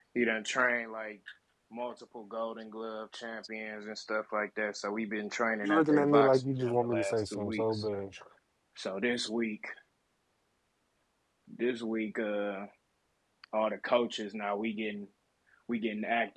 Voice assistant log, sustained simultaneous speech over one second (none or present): present